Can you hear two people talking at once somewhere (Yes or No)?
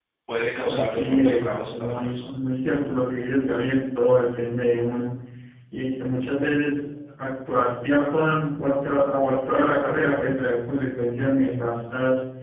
Yes